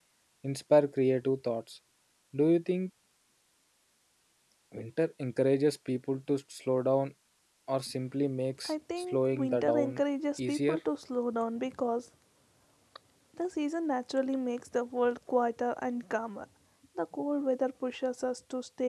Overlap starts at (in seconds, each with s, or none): 8.6 s